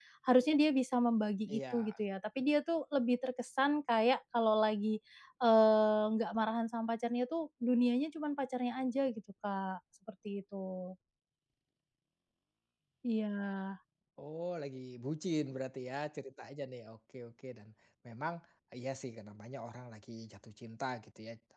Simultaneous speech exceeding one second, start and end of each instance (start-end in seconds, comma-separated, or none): none